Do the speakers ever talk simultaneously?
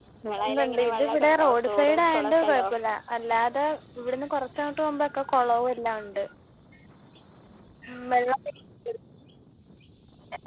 Yes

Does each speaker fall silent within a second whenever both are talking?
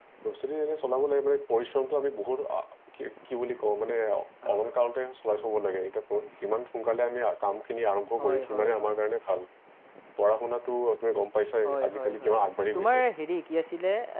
No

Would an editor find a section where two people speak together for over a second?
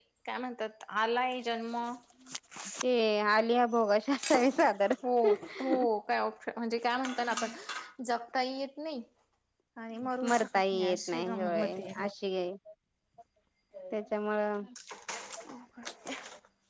Yes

